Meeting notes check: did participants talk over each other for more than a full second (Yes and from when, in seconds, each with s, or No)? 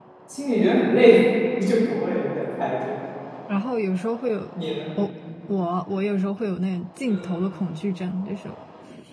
No